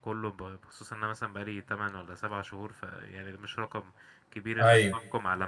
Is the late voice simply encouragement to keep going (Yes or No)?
Yes